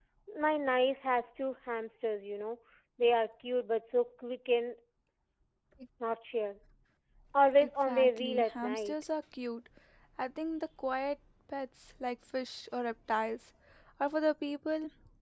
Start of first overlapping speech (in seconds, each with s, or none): 7.6 s